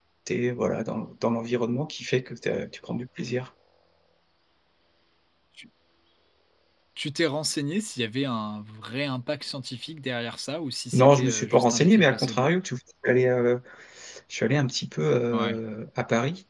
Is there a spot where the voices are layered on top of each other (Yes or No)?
Yes